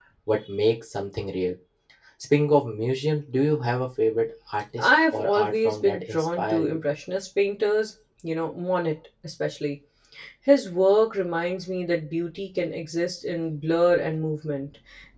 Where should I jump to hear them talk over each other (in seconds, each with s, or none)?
4.8 s